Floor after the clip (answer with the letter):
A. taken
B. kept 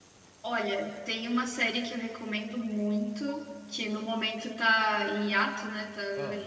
B